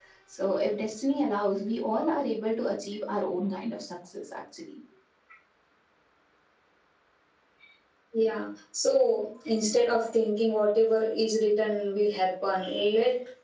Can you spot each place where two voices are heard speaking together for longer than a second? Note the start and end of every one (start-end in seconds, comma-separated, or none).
none